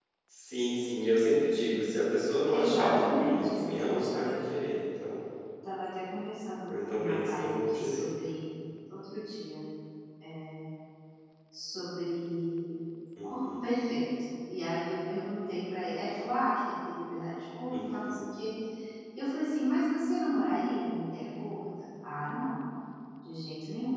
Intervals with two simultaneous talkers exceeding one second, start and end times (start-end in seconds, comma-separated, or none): 2.5-4.3, 6.8-8.1